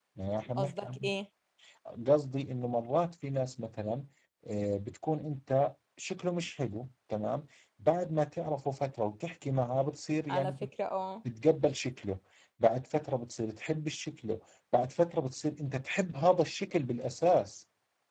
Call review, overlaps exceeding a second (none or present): none